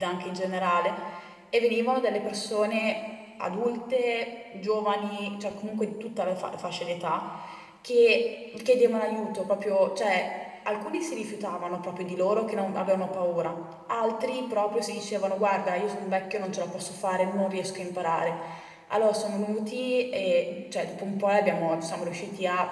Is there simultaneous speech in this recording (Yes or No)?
No